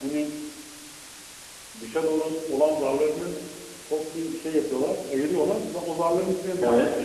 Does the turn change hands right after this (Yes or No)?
No